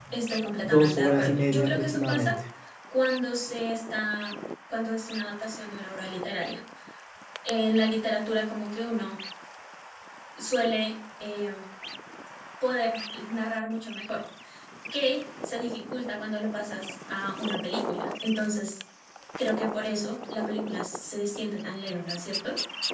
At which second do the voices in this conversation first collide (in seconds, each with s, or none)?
0.6 s